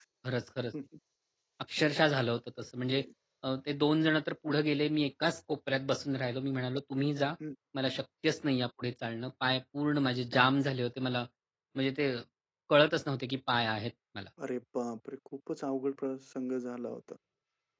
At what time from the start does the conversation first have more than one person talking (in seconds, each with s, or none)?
none